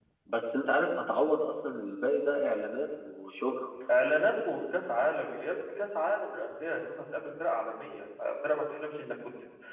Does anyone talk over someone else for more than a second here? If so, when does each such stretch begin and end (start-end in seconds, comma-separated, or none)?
none